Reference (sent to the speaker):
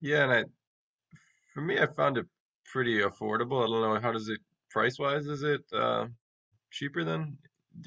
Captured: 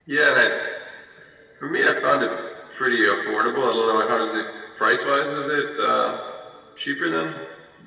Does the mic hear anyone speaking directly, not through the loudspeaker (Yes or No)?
No